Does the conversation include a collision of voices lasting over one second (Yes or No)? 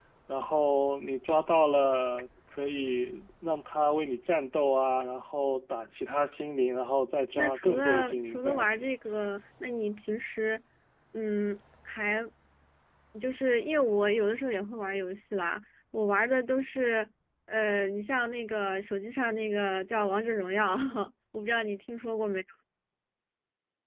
Yes